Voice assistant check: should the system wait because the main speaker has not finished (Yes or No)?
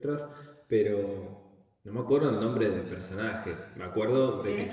No